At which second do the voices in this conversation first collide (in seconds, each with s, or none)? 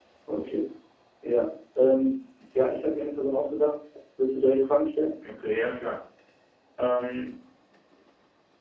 none